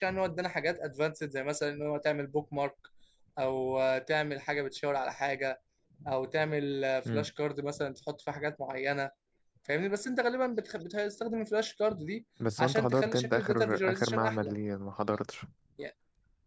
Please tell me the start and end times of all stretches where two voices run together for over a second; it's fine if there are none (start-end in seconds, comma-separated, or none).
12.6-14.5